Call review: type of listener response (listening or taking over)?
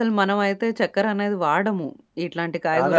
taking over